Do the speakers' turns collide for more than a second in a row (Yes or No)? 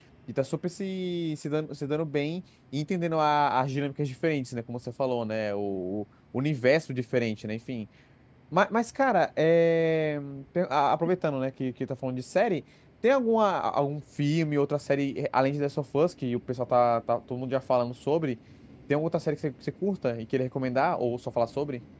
No